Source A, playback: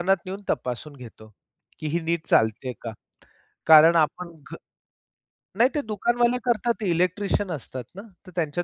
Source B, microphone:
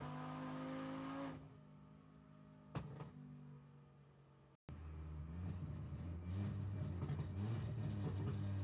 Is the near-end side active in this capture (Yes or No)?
No